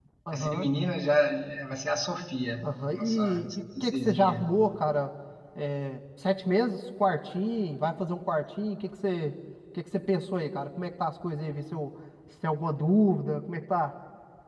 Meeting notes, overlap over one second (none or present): present